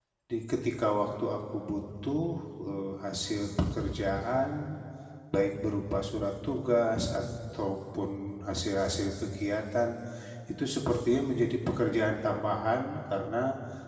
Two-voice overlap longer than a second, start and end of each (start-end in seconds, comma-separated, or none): none